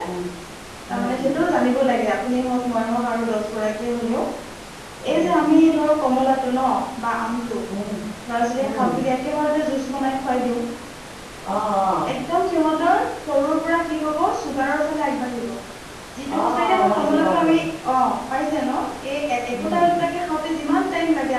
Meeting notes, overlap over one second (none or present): present